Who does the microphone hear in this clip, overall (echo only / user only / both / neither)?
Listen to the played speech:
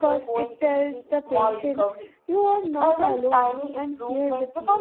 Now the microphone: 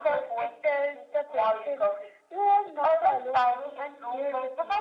echo only